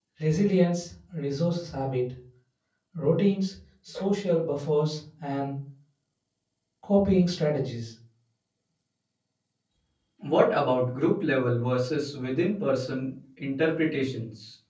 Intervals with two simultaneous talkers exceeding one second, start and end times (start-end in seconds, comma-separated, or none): none